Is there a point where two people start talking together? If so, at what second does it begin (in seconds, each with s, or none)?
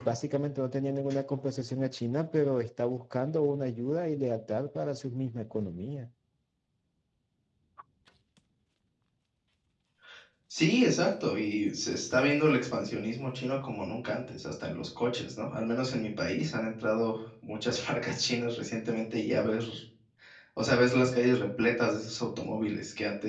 none